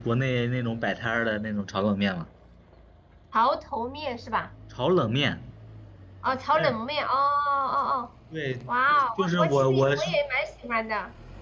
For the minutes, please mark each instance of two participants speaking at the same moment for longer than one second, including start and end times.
8.7-10.2

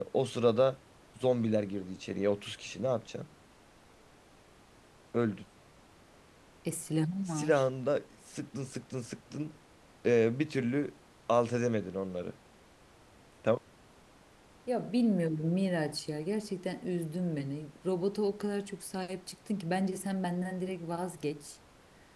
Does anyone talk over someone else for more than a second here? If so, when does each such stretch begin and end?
none

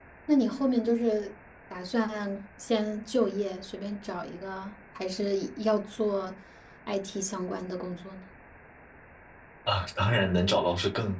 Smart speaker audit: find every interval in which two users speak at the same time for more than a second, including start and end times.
none

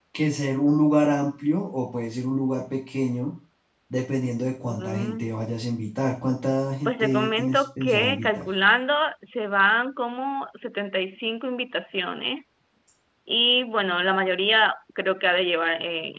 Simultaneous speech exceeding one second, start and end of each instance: 6.8-8.5

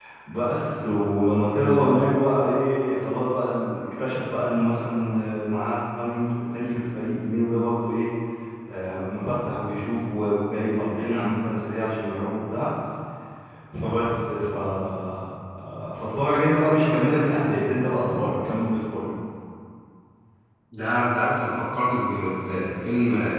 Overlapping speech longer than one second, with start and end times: none

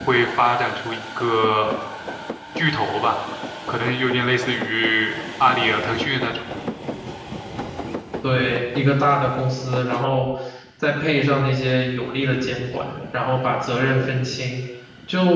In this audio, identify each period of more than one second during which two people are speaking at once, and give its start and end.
none

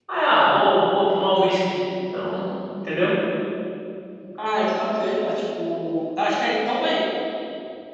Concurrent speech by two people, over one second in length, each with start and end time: none

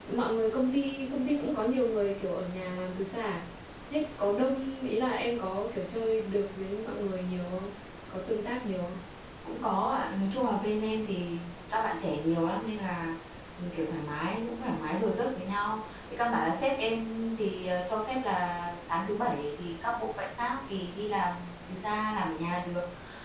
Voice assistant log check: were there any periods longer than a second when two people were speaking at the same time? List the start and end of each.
none

